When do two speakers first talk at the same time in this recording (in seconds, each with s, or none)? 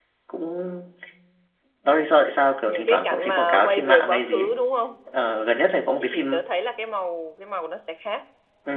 2.7 s